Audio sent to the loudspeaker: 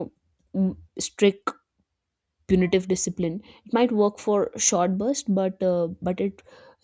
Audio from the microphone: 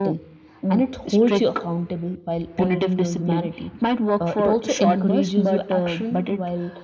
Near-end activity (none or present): present